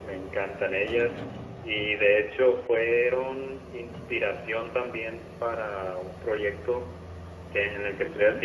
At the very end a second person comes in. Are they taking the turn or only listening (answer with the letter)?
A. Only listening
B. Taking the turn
A